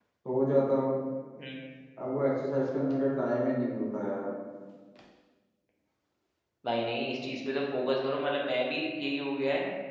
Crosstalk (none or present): none